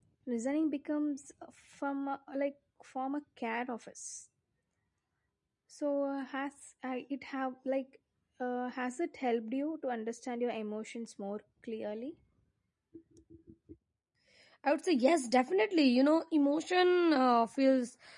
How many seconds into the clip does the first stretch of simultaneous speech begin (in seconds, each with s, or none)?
none